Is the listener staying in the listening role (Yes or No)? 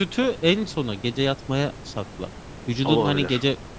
Yes